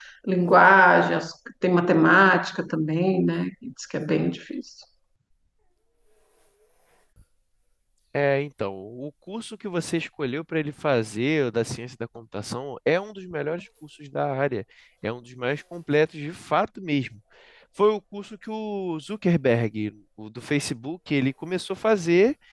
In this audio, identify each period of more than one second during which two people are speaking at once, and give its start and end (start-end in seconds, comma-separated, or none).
none